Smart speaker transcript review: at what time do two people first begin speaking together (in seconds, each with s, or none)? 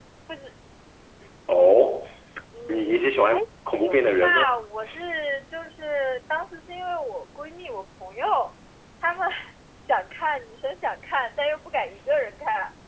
2.7 s